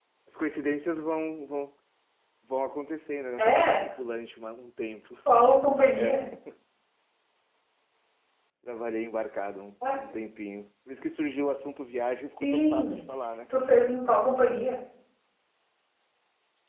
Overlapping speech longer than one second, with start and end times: none

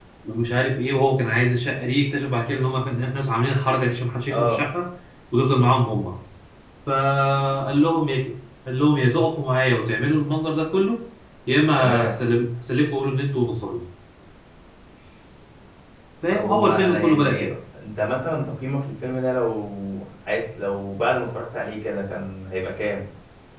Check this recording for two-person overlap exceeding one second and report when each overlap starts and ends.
16.3-17.5

